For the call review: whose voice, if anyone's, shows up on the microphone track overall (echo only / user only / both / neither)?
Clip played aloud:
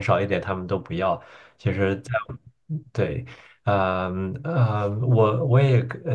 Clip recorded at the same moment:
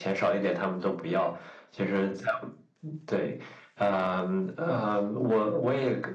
echo only